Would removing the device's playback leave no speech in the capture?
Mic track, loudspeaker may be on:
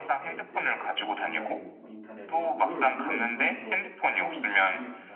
No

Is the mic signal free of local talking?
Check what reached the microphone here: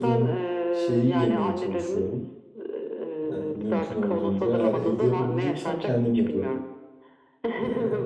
No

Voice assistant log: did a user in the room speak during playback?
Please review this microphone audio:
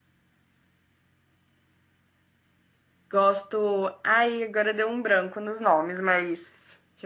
Yes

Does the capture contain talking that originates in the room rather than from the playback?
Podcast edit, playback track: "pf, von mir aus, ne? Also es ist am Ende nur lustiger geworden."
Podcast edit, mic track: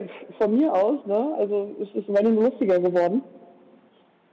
No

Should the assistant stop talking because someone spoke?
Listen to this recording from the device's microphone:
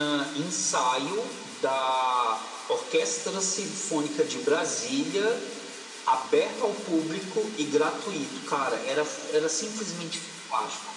No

